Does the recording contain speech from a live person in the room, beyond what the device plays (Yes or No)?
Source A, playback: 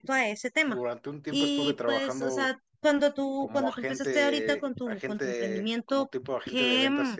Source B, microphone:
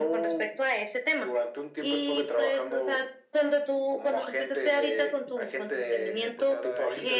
Yes